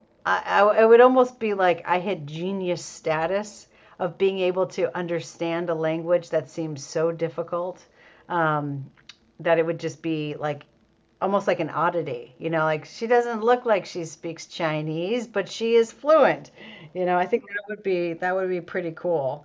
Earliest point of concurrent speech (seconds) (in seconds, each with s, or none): none